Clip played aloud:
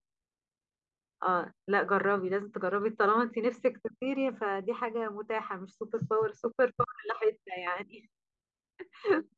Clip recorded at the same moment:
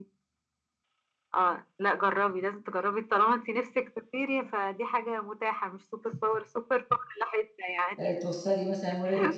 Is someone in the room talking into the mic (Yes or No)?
Yes